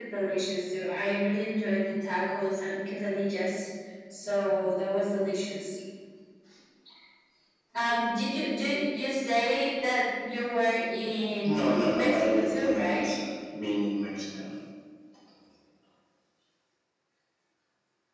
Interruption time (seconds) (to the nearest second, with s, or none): 11 s